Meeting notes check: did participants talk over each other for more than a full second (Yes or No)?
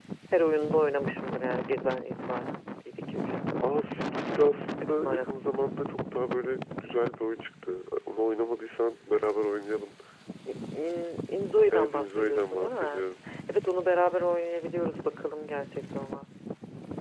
Yes